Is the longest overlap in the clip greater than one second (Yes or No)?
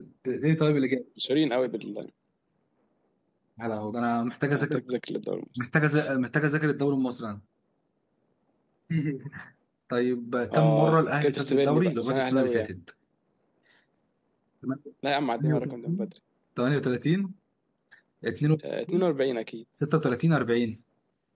Yes